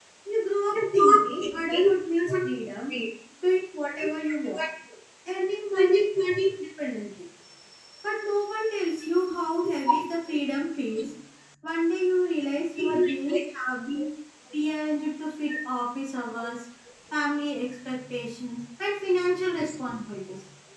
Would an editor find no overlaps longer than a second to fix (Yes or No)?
No